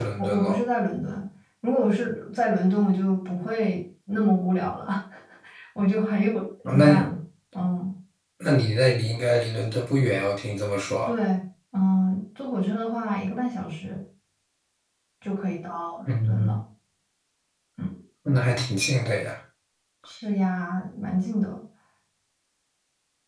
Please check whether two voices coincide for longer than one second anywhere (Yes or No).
No